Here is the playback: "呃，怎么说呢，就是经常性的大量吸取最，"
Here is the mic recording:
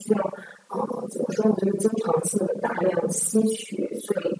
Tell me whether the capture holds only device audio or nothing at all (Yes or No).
Yes